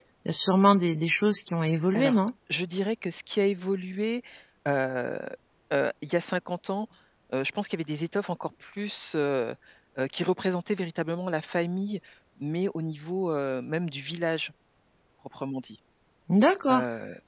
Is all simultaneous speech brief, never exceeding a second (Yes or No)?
Yes